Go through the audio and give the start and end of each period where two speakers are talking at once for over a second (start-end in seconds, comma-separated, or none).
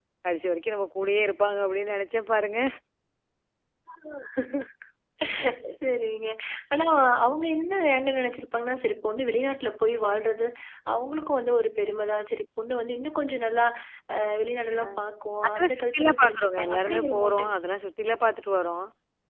15.6-17.5